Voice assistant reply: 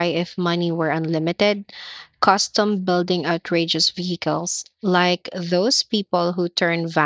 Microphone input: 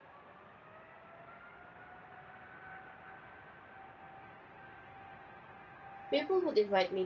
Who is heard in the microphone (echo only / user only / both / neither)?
user only